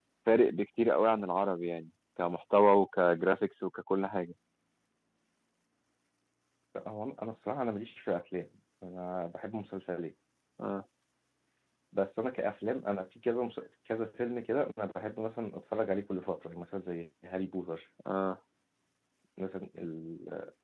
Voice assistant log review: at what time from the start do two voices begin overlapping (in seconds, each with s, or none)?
none